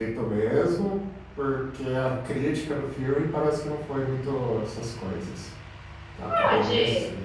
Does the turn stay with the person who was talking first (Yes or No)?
No